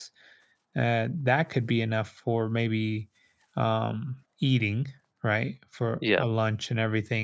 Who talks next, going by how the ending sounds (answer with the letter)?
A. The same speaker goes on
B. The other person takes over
A